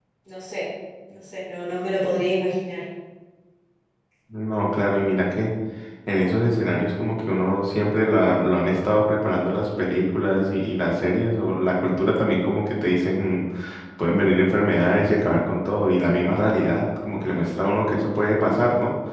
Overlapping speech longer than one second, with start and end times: none

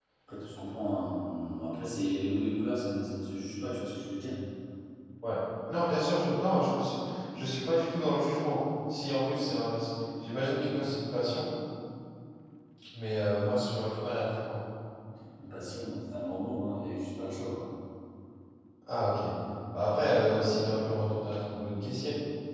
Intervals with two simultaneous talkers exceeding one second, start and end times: none

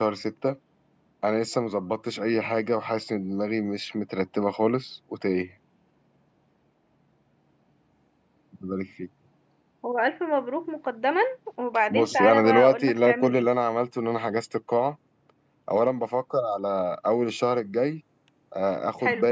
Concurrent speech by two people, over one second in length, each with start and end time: 11.9-13.5

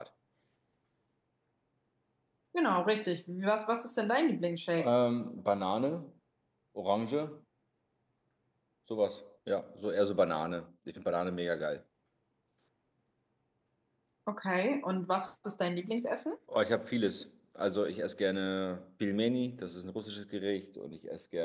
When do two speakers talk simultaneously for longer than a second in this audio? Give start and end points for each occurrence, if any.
none

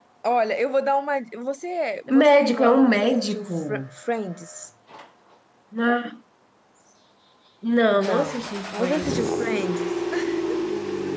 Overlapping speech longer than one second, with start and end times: 2.1-3.8, 7.9-9.4

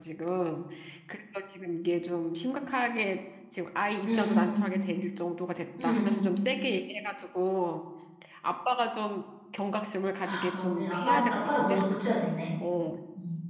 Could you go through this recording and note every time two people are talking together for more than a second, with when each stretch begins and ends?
10.2-11.8

